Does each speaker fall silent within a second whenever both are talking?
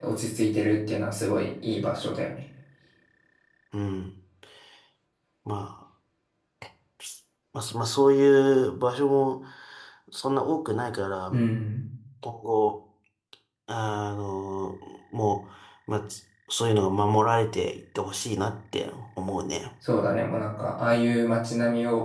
Yes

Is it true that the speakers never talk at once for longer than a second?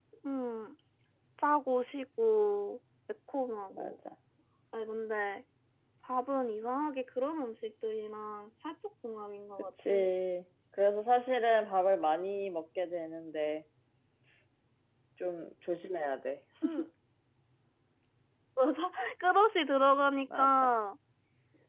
Yes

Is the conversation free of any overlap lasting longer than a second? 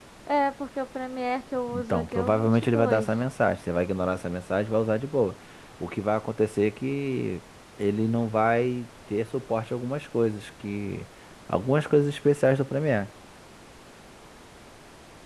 No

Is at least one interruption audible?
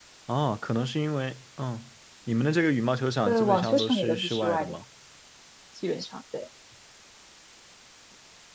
Yes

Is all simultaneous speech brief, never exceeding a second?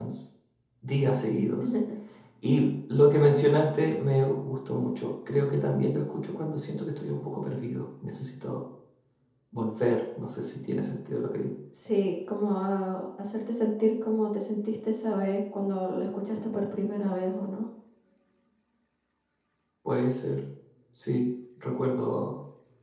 Yes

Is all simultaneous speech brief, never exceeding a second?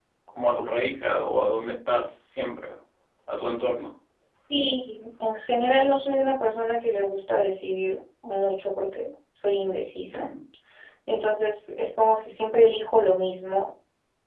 Yes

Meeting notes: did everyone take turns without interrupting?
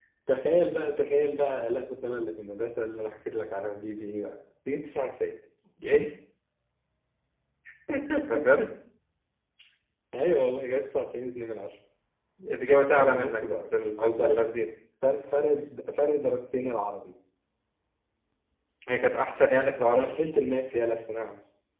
No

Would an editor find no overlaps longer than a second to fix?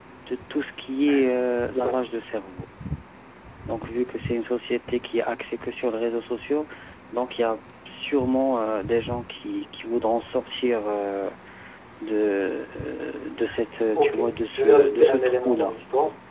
No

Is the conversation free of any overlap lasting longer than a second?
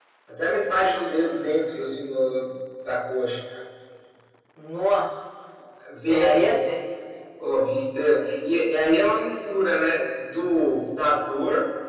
Yes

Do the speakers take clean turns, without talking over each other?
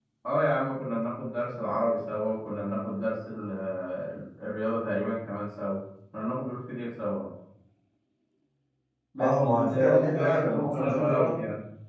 No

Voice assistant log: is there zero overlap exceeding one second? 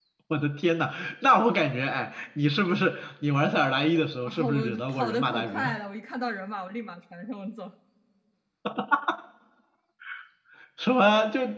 No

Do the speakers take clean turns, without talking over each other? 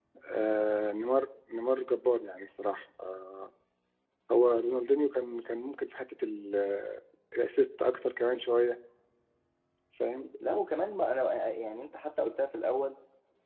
Yes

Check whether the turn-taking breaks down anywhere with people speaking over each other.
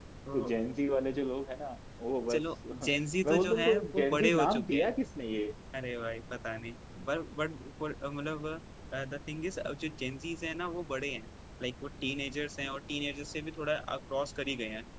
Yes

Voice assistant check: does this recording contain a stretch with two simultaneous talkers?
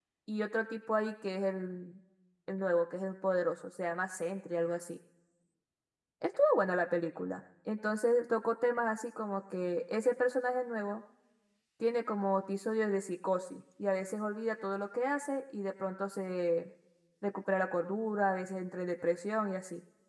No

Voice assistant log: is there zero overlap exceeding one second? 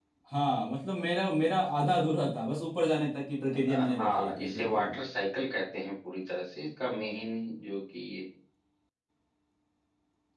No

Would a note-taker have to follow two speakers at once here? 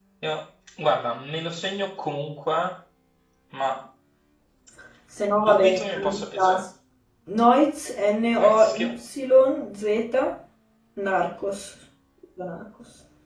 Yes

